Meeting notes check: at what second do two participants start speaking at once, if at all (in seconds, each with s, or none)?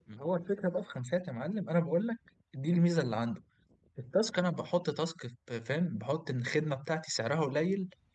none